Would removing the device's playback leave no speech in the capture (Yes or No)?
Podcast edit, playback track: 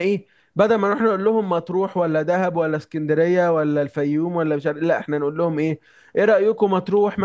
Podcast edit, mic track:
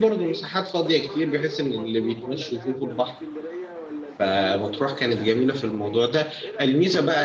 No